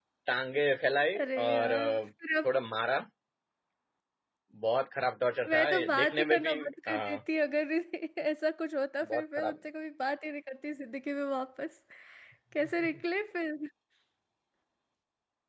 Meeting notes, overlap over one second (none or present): present